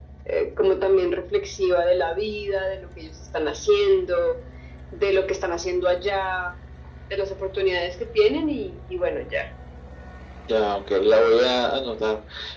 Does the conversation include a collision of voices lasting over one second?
No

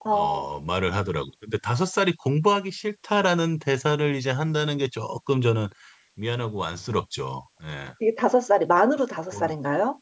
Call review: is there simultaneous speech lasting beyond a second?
No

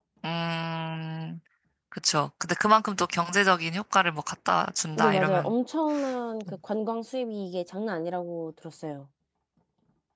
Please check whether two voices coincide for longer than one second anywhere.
No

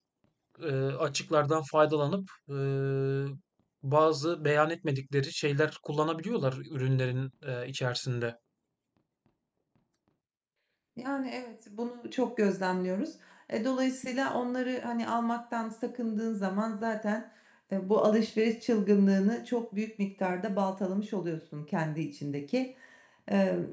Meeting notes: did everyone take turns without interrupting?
Yes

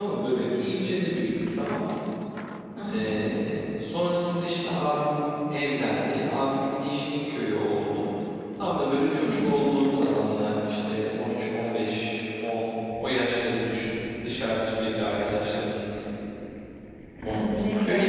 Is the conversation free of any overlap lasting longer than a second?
Yes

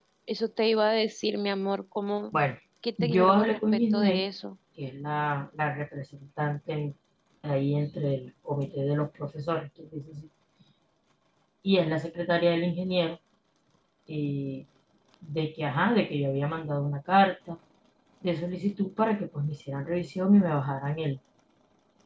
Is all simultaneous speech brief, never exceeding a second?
No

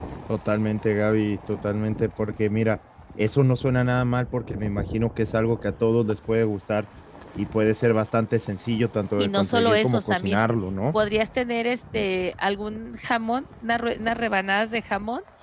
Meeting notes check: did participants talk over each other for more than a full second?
Yes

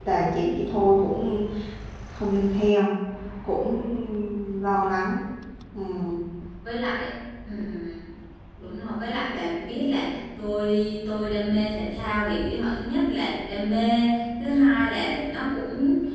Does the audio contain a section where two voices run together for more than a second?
No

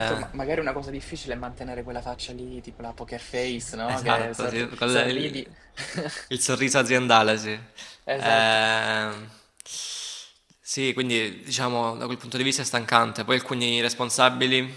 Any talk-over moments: Yes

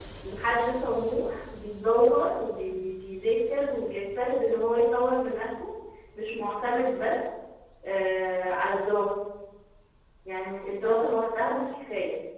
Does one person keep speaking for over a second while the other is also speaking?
No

